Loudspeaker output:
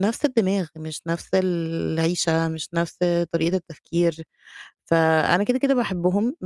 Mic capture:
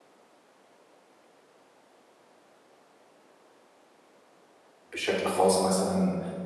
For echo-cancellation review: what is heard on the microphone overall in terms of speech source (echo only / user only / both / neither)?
user only